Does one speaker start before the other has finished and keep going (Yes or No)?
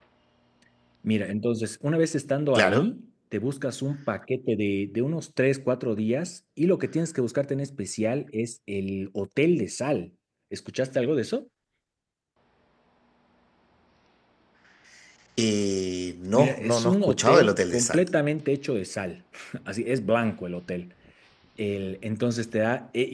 Yes